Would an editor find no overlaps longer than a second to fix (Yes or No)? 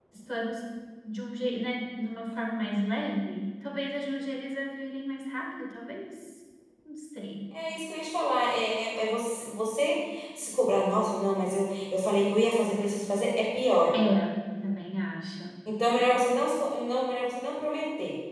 Yes